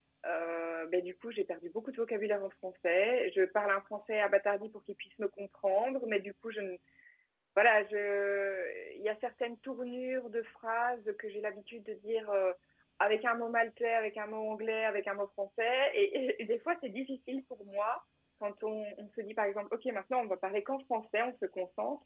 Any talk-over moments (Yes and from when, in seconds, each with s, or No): No